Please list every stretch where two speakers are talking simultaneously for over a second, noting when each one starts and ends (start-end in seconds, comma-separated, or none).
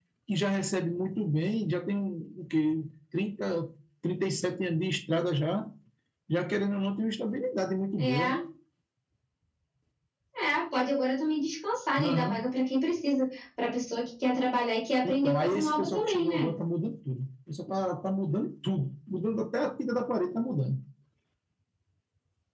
15.0-16.5